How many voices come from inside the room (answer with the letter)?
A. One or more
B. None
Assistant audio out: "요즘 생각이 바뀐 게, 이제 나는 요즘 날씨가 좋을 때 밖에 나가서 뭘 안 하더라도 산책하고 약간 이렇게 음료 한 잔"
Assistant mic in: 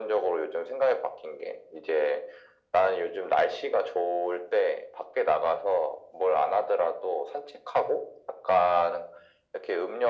B